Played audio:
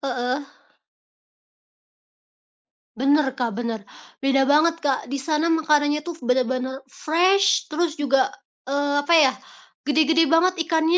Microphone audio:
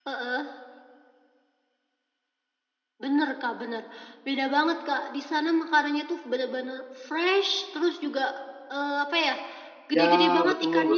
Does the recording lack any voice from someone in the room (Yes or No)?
No